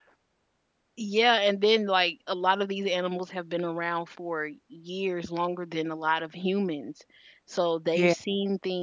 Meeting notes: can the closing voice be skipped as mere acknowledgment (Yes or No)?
Yes